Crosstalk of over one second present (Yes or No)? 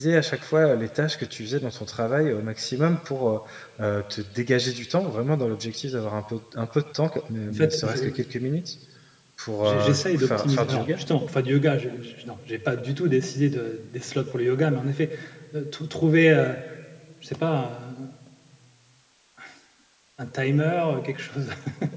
Yes